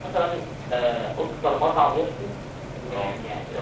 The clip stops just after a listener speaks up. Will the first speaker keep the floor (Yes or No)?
Yes